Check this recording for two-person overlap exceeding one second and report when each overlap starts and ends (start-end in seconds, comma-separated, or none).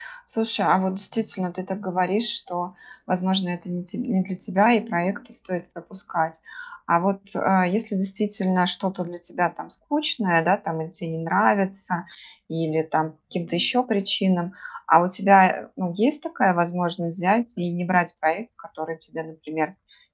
none